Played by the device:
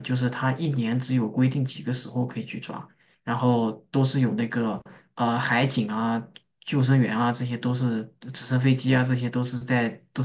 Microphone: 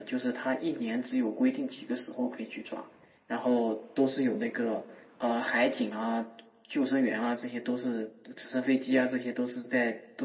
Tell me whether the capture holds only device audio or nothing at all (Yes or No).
Yes